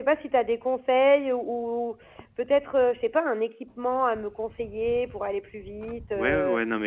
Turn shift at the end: Yes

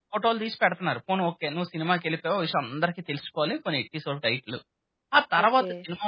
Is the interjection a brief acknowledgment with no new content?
Yes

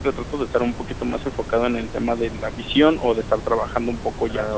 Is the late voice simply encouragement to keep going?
Yes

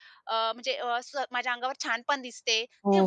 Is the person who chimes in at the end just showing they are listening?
No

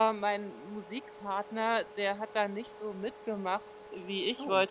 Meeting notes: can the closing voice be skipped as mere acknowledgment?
Yes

